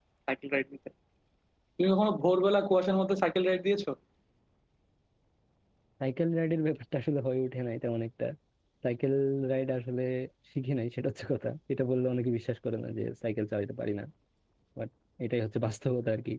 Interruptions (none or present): none